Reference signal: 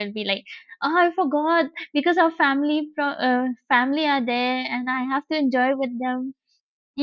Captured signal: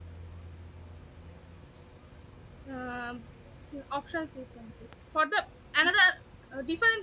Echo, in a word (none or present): none